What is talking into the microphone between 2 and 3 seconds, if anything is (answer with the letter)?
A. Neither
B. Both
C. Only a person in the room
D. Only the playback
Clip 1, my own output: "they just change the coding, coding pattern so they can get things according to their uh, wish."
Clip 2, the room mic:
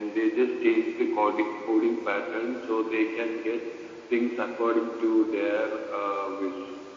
D